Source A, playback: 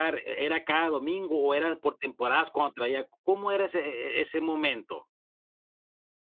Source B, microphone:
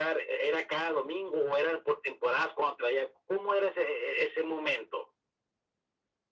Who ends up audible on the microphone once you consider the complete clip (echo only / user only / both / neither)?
echo only